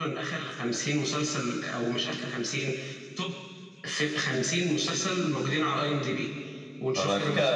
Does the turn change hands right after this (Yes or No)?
No